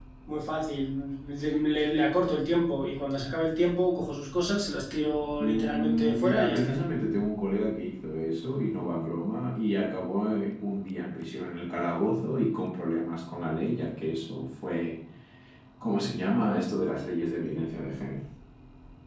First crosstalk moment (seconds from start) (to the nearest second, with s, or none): 5 s